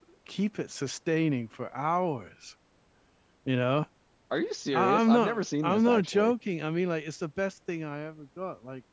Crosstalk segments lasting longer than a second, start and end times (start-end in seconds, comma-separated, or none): 4.7-6.3